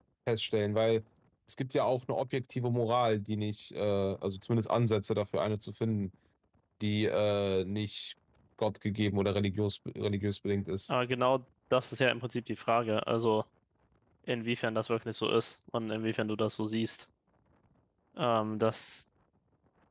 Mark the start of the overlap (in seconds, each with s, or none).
none